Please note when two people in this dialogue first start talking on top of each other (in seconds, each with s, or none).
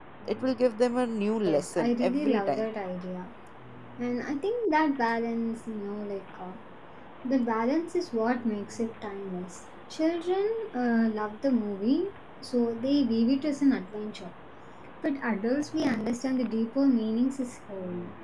1.5 s